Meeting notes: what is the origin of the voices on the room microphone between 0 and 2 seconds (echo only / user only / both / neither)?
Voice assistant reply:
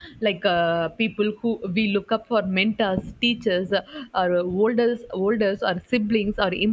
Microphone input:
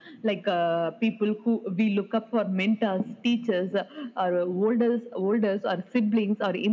echo only